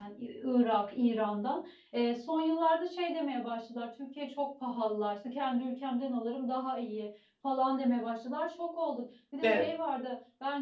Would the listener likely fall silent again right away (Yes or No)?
Yes